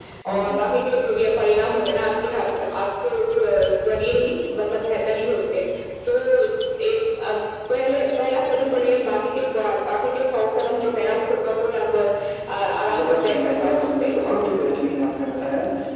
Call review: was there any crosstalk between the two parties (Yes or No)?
Yes